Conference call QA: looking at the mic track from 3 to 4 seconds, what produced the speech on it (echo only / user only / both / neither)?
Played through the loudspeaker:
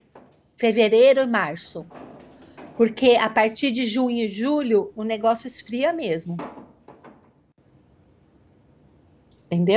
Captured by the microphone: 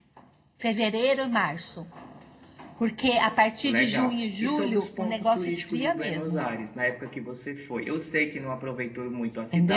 both